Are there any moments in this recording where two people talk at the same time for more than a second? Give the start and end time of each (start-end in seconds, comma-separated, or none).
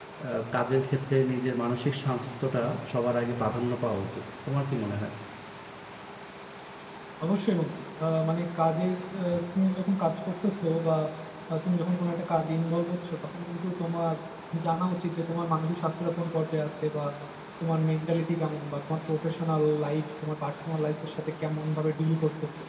none